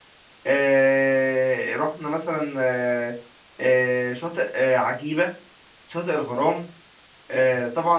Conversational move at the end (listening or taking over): listening